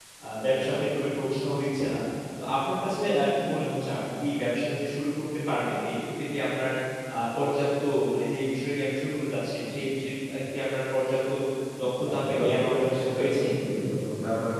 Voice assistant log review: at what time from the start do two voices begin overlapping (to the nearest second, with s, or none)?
12 s